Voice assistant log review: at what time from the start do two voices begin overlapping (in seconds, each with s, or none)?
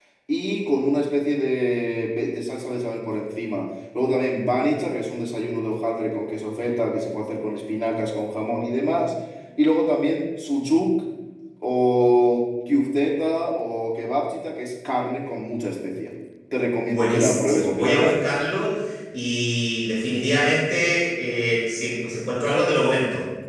16.9 s